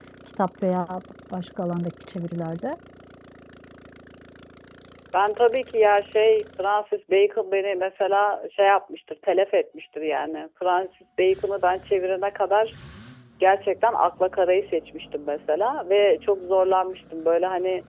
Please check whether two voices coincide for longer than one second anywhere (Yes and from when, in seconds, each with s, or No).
No